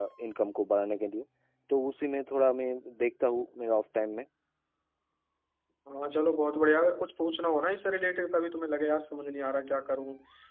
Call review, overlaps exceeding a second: none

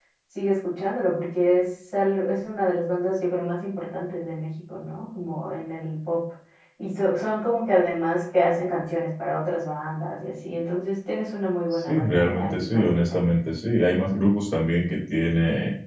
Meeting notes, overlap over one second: present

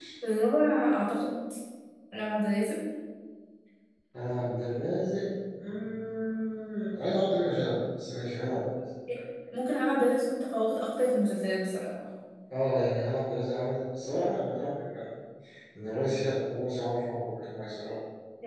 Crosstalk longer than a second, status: none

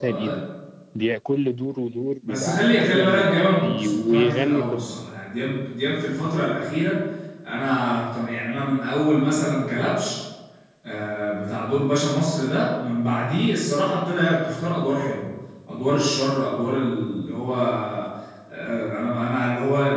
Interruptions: present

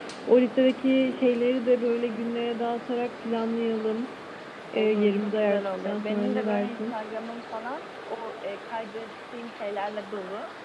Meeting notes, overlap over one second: present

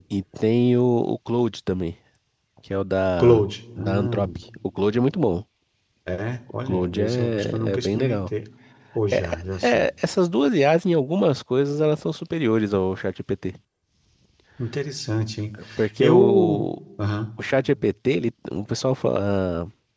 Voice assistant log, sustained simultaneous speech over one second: present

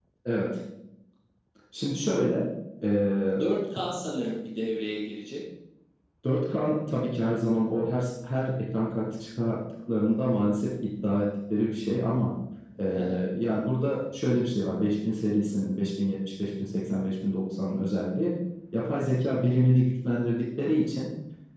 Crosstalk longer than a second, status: none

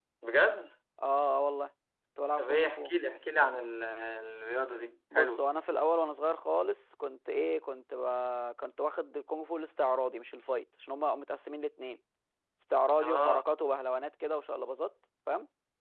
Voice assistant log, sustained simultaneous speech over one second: none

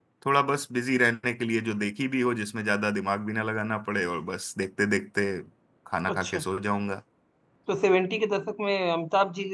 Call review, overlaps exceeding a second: none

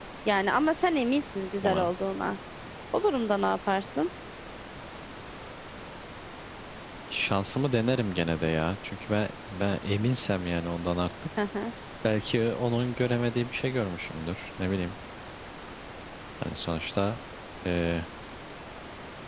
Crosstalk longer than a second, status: none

